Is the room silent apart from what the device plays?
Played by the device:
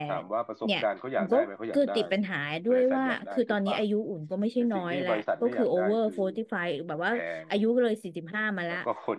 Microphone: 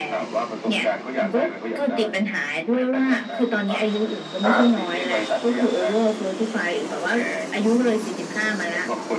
No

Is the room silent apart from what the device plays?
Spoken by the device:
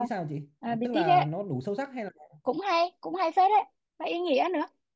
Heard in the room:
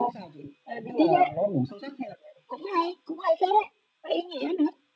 Yes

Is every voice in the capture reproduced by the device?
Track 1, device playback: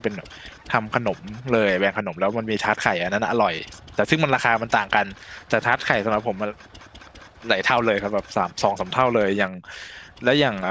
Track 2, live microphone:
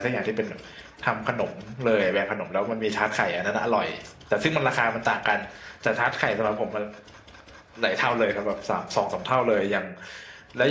Yes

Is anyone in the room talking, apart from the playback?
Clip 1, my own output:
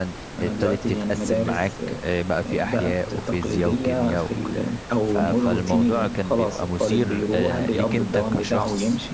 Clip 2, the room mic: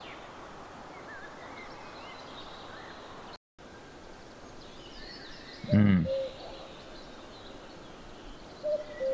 Yes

